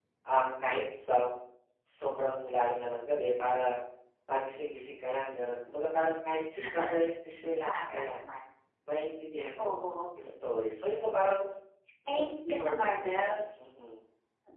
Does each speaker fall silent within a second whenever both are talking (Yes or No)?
No